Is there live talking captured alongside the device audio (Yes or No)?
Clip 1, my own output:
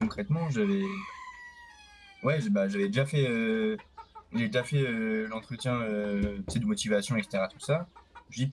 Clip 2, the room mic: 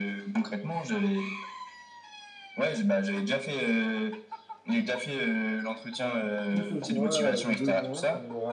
Yes